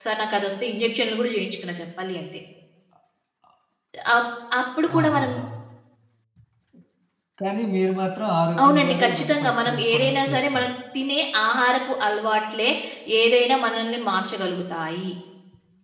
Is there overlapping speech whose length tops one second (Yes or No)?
Yes